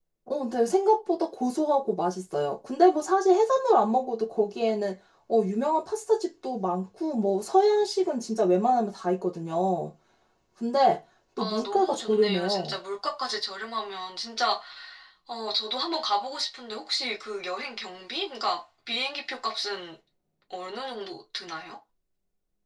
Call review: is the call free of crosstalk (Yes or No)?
No